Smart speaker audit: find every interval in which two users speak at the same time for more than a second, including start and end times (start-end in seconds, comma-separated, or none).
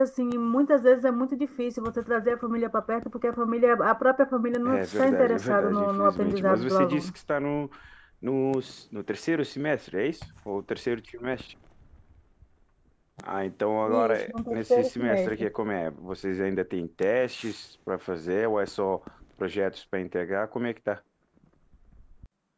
4.6-7.1, 13.9-15.3